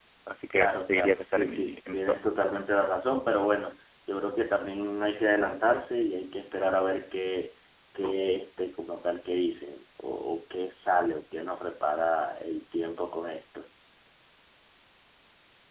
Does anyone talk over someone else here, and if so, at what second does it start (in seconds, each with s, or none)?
0.5 s